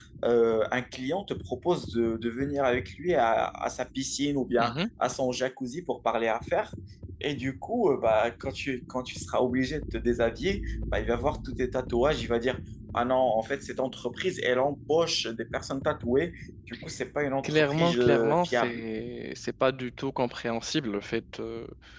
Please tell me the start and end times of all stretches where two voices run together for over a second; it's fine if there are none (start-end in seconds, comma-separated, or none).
17.4-18.8